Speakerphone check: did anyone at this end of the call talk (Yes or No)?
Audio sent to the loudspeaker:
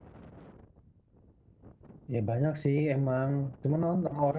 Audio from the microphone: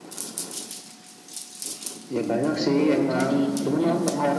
Yes